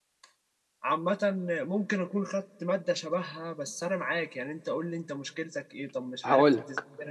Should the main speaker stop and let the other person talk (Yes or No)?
No